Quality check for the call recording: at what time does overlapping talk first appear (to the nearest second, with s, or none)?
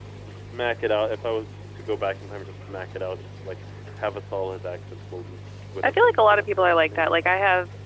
6 s